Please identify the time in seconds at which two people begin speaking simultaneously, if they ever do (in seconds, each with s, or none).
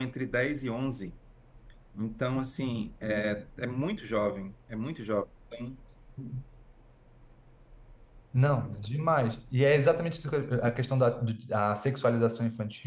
none